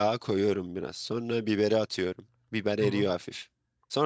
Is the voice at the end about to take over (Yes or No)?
No